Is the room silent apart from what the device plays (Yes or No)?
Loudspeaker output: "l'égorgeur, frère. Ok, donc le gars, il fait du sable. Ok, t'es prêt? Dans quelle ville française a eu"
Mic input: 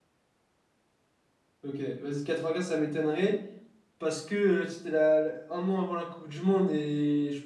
No